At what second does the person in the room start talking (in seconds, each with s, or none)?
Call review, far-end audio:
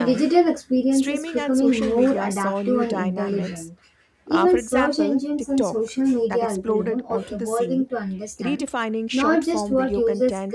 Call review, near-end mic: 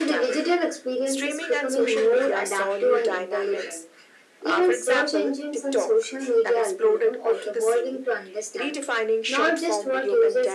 none